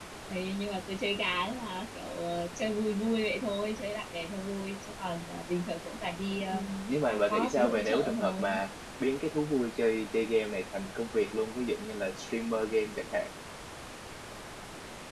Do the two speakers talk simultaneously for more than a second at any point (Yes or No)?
Yes